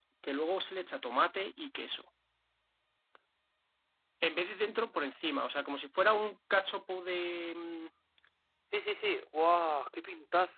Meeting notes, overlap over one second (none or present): none